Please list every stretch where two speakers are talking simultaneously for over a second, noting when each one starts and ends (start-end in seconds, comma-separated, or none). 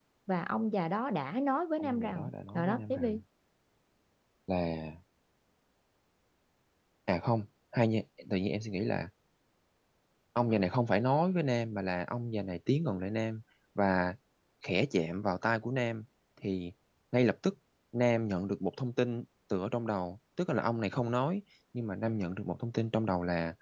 1.8-3.2